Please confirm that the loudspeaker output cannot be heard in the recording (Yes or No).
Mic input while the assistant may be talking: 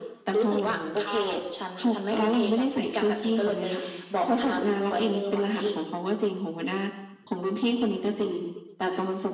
No